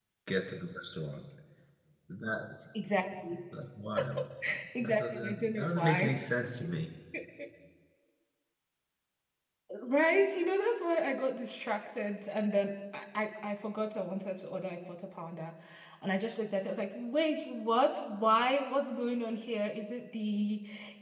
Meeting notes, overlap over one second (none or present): present